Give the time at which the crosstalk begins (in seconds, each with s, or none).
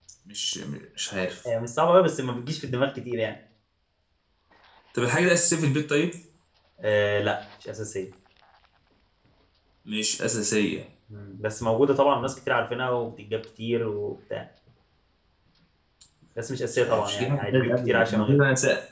16.7 s